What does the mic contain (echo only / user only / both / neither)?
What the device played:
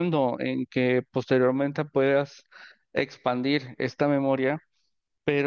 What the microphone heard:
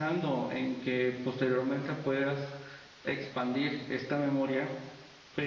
echo only